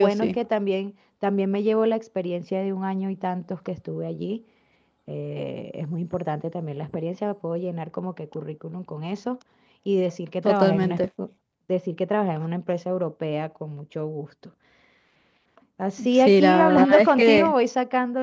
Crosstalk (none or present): present